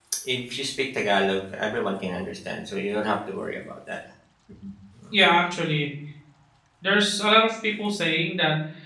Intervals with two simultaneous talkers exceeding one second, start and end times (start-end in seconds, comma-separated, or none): none